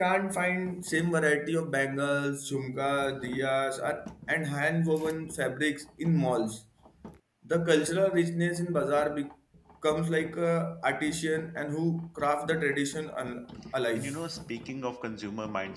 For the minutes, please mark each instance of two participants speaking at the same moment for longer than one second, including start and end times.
none

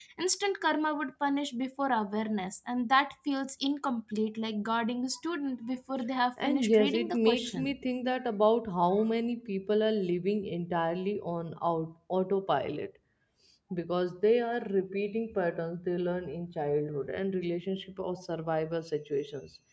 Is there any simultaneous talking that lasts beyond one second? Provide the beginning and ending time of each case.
6.4-7.7

